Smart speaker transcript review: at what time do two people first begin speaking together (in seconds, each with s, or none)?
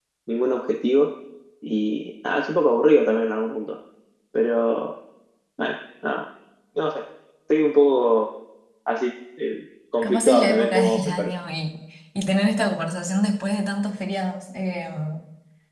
10.0 s